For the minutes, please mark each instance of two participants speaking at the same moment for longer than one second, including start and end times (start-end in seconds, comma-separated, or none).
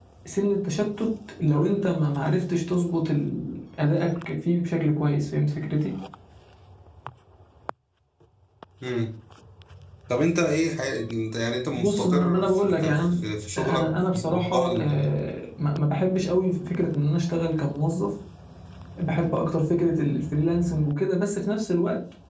11.8-13.0, 13.6-15.1